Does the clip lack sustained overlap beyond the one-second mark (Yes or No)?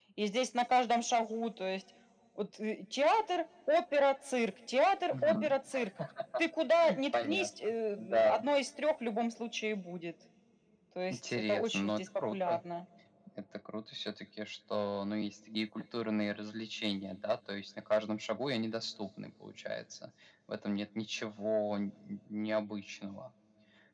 No